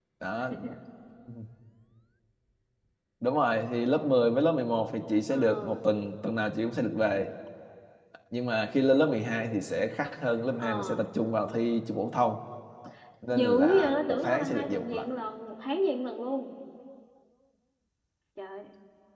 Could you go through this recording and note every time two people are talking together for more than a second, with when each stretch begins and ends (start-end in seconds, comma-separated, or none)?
13.3-15.1